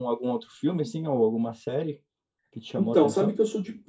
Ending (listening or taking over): taking over